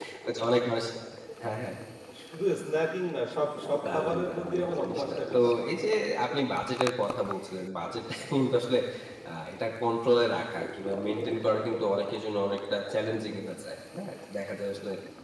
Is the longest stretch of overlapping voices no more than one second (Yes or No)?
No